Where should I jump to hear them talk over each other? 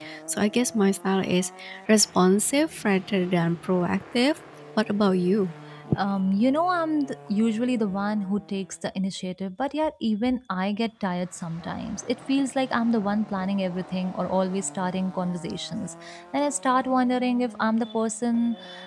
none

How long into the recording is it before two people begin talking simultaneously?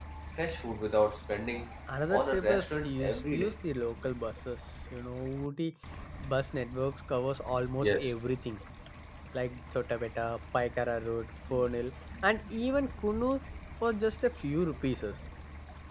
2 s

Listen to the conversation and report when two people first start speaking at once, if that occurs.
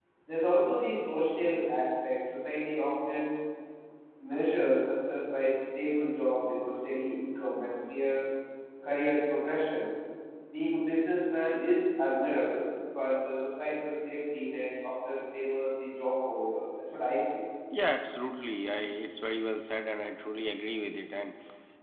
none

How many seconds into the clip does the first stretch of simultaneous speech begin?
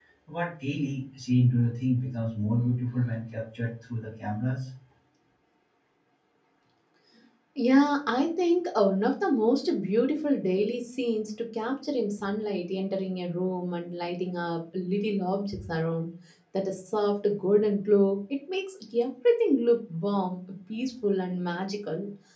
none

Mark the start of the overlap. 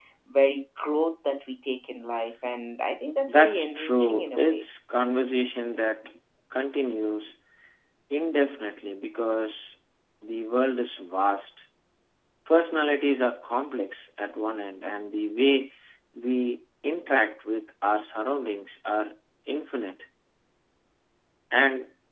3 s

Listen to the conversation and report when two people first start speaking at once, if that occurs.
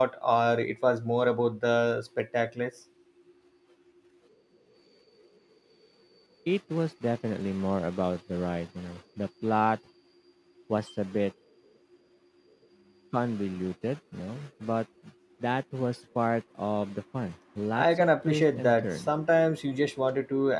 18 s

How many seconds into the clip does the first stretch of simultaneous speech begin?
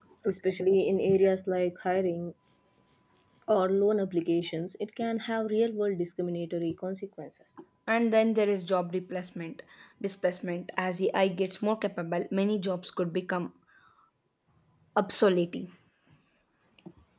none

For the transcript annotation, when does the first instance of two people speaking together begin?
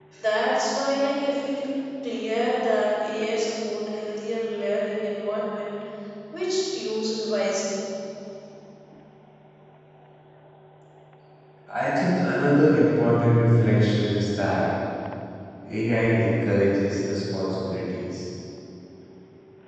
none

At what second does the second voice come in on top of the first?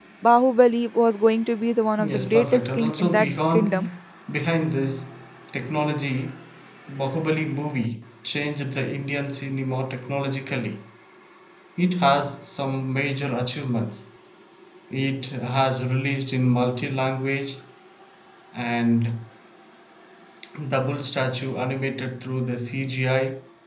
2 s

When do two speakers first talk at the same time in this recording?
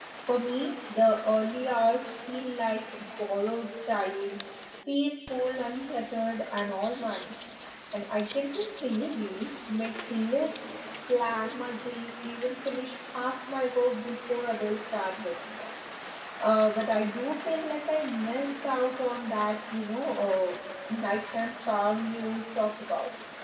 none

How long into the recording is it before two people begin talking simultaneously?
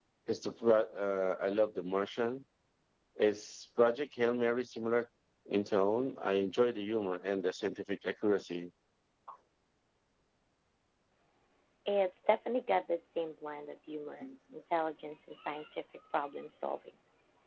none

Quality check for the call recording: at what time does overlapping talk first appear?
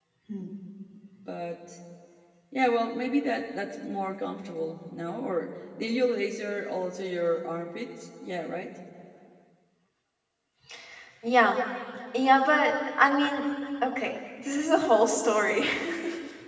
none

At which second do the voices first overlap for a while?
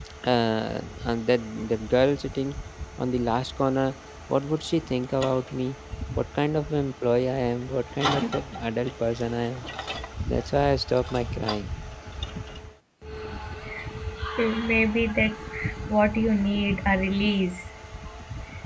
none

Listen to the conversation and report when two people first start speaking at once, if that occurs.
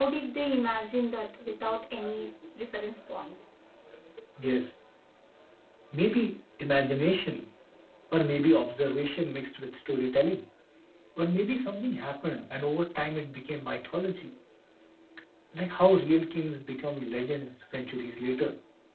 none

